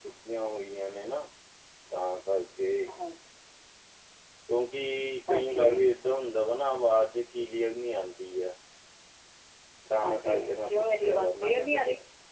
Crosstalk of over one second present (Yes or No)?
Yes